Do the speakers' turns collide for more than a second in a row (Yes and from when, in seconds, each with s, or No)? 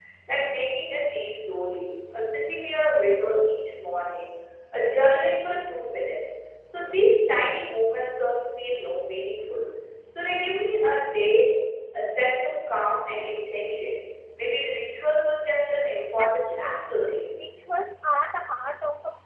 Yes, from 16.2 s